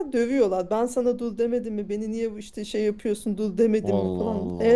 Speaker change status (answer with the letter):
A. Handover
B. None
B